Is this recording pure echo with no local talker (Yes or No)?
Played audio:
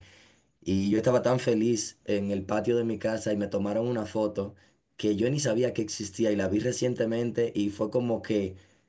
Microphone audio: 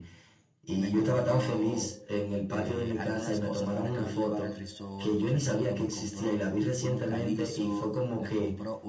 No